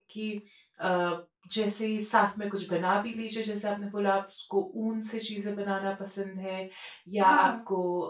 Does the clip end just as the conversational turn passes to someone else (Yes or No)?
No